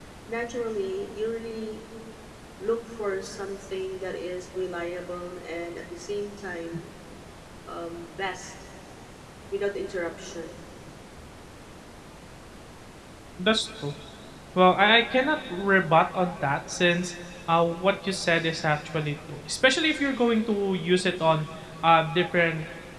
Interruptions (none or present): none